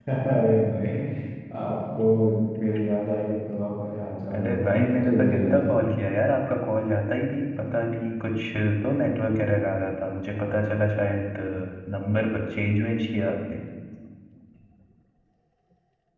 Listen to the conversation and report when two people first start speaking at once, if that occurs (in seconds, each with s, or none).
4.3 s